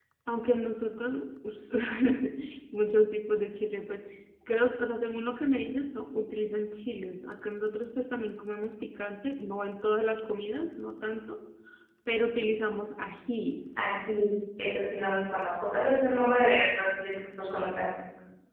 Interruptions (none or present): none